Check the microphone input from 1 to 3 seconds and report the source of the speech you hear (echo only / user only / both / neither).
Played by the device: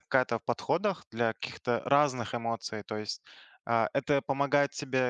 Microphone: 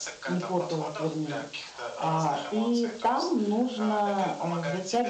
both